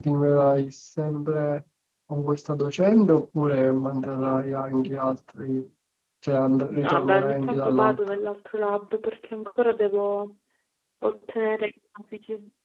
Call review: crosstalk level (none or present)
present